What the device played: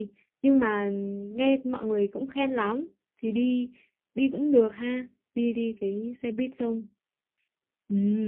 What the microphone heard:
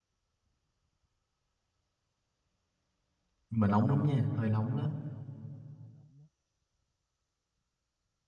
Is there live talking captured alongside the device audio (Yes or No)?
Yes